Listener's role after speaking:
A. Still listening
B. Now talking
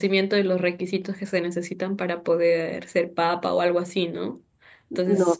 A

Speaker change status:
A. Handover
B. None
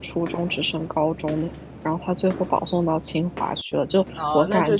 A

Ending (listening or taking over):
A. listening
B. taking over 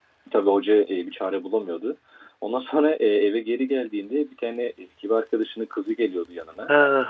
B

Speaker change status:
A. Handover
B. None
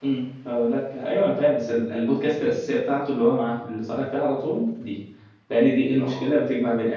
B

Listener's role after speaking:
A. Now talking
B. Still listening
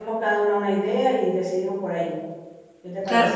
A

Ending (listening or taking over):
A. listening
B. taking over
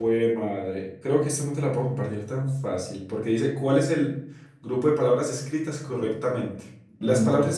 A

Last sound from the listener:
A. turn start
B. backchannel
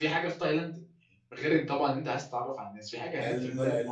A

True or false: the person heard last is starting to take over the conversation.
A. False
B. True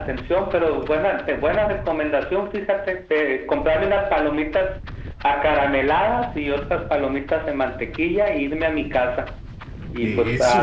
A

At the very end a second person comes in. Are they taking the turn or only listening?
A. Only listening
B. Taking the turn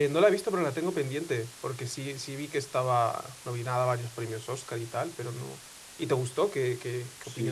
B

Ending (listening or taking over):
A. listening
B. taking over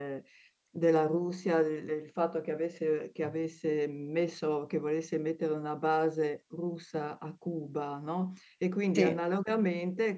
A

